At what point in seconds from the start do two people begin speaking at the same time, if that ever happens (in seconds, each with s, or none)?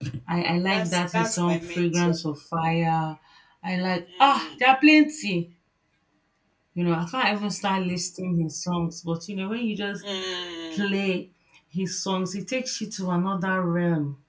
0.7 s